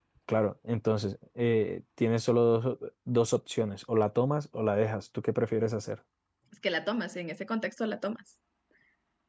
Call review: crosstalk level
none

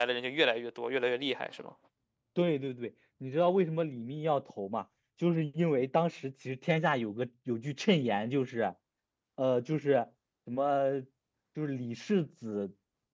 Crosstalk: none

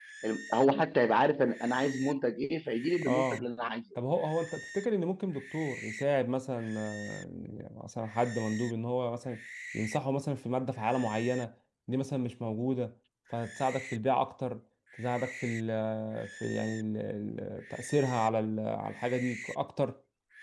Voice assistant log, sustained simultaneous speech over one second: none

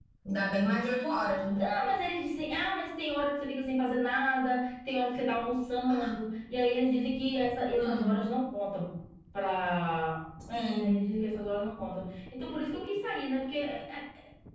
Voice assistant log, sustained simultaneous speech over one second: none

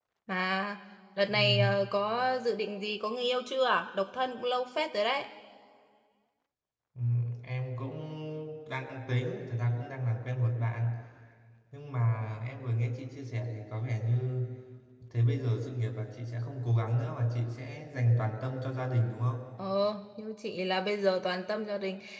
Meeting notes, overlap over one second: none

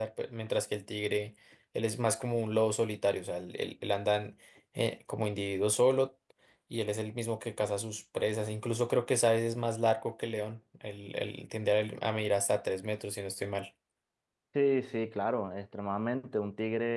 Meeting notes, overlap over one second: none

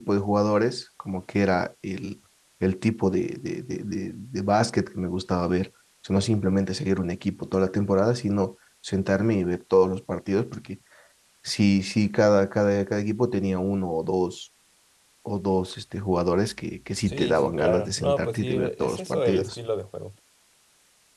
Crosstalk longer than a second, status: present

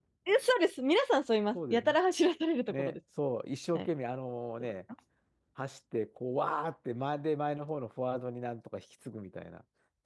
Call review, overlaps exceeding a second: none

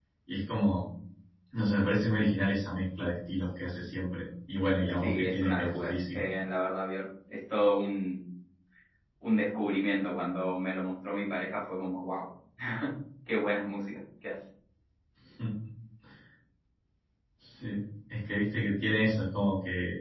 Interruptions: present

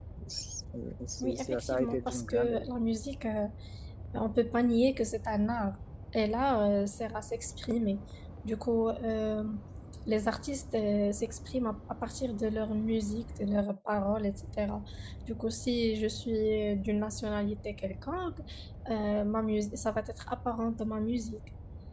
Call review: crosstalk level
present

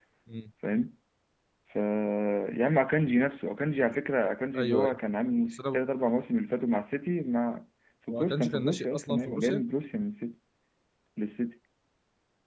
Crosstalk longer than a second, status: present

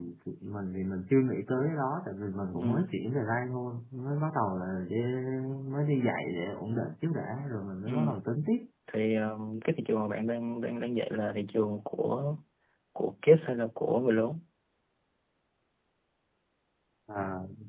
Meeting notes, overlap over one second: none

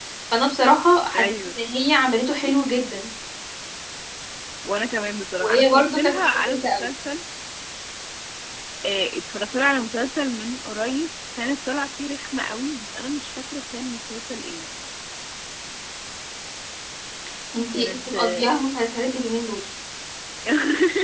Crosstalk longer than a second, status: present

